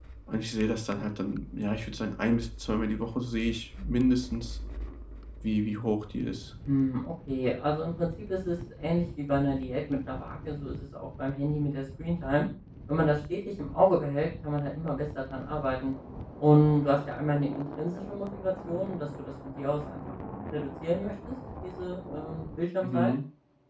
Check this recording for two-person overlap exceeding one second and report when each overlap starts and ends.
none

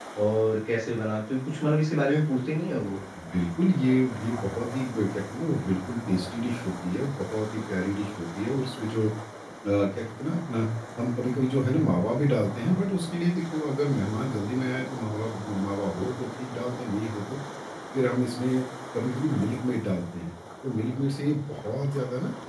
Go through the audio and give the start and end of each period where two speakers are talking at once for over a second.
none

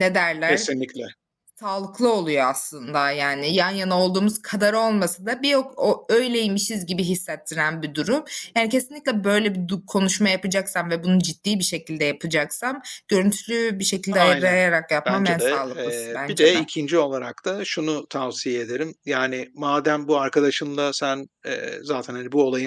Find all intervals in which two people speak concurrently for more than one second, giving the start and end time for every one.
15.0-16.6

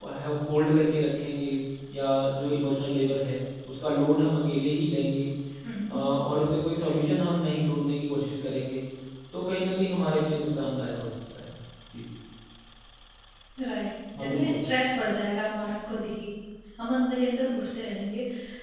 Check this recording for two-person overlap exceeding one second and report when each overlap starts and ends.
none

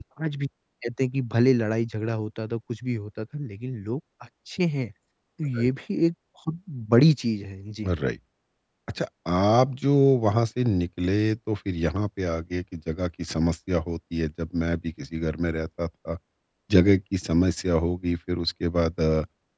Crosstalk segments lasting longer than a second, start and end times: none

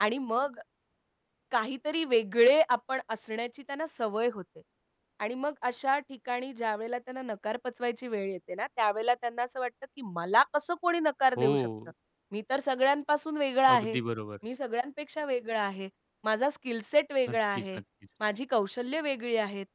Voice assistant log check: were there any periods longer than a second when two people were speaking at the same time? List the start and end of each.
none

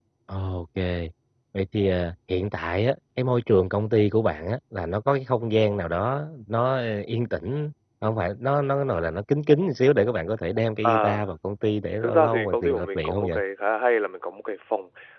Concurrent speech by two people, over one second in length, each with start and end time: 12.0-13.4

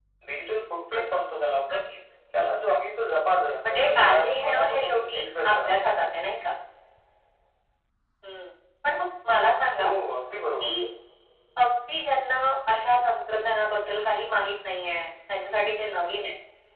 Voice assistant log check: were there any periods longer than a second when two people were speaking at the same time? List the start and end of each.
3.7-5.7

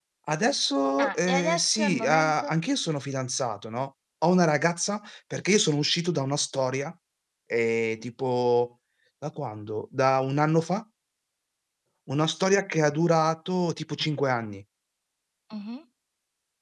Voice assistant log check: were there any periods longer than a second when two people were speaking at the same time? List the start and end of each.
1.0-2.5

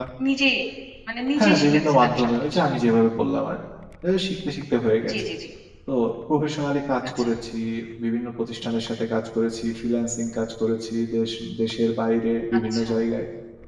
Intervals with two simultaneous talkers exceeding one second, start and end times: 1.4-2.6

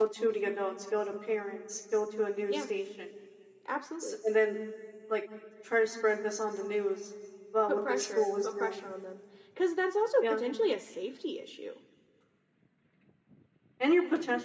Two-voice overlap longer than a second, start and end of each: 7.7-8.9

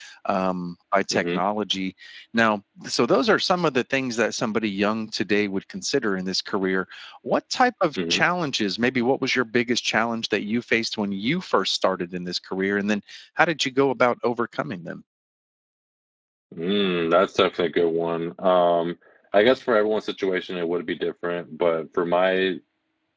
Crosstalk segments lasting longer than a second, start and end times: none

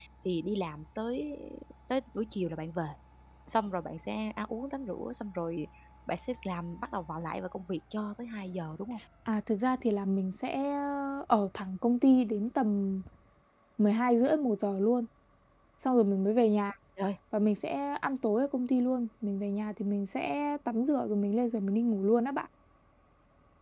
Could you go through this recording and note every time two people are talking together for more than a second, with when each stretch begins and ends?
none

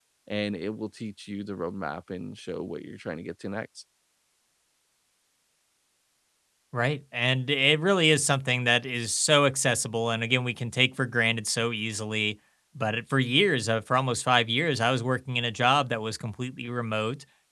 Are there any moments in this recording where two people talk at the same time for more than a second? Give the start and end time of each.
none

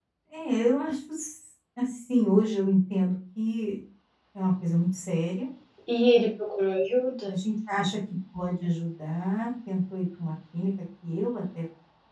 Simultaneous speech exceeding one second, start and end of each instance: none

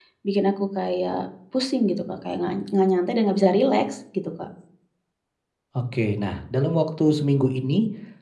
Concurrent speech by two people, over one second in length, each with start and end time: none

